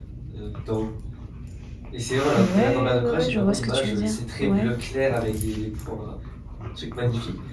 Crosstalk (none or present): present